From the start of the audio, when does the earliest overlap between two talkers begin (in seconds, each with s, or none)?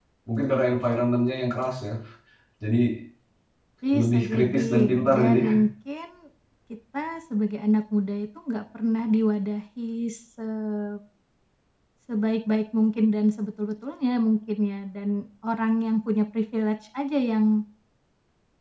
3.9 s